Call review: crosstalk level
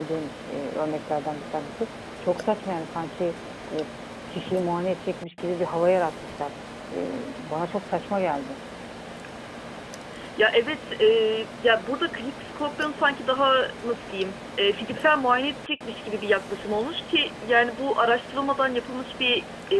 none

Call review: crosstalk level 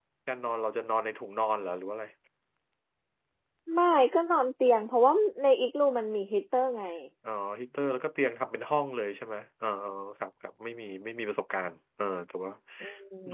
none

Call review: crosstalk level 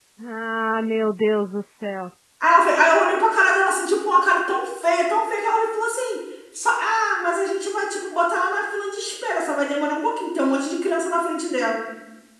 none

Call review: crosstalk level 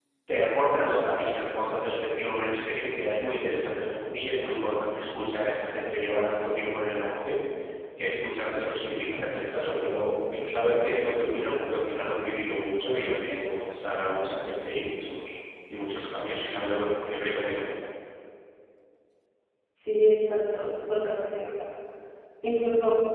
none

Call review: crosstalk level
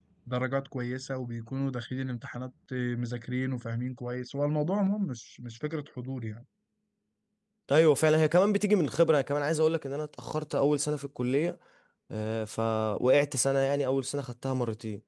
none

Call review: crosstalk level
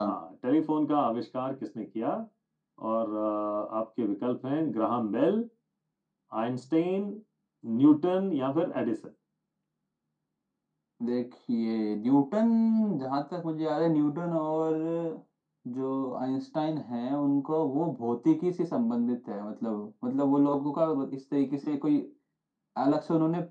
none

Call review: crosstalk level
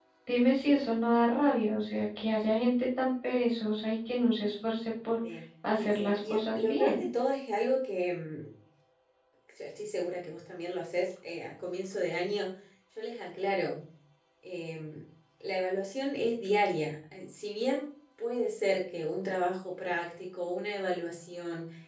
present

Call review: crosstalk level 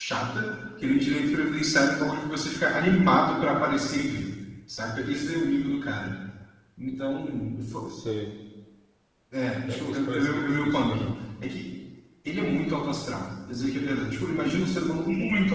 present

